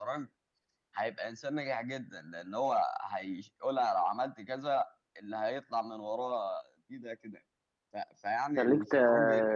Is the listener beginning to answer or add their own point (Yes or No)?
Yes